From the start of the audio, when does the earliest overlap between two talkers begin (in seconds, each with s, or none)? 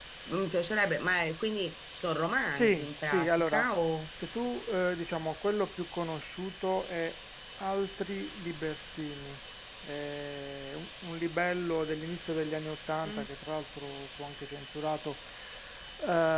2.2 s